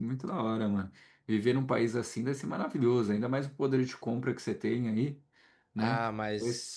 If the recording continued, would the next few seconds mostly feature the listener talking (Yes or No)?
Yes